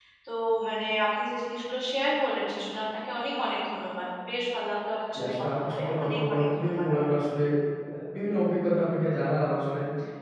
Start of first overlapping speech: 5 s

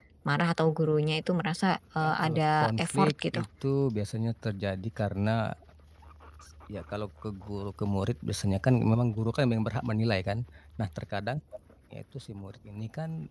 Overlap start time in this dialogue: 2 s

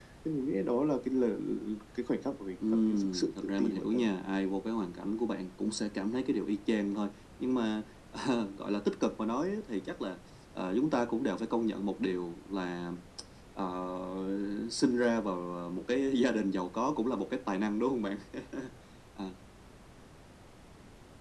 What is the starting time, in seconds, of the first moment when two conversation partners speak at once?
3 s

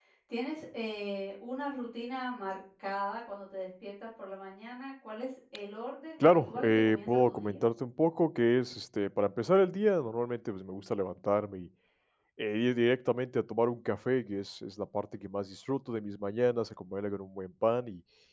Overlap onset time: 6 s

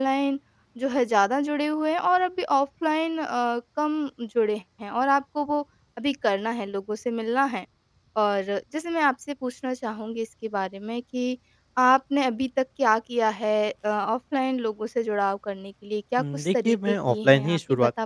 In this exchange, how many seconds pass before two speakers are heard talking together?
16 s

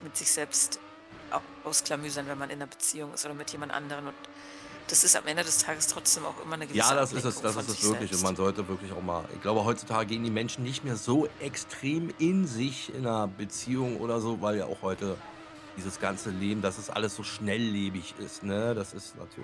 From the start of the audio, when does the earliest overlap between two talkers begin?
7 s

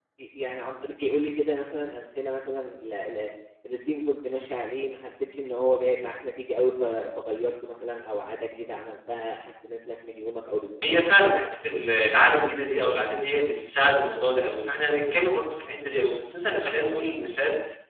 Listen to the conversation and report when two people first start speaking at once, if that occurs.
none

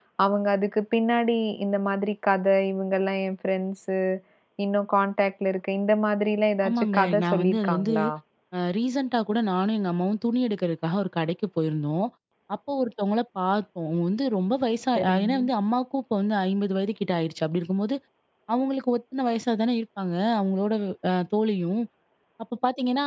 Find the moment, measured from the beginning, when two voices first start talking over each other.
7 s

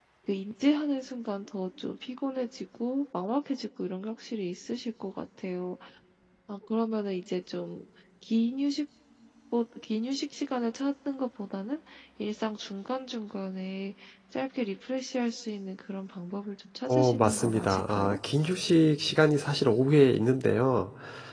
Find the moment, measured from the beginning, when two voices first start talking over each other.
17 s

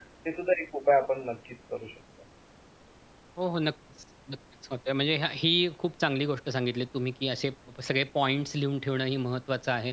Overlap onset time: none

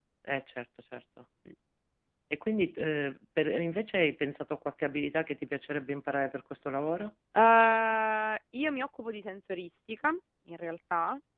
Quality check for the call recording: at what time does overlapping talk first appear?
none

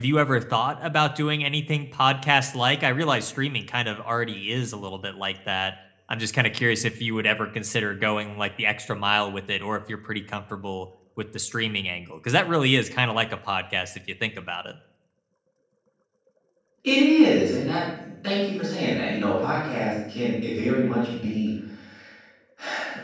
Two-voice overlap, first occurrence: none

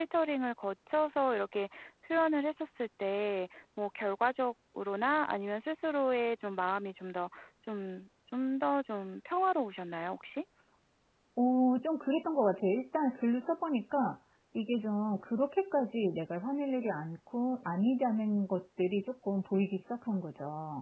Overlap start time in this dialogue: none

